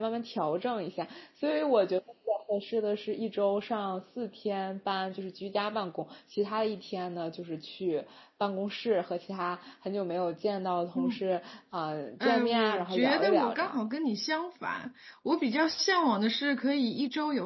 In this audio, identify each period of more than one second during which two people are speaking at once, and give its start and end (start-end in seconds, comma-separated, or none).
12.2-13.8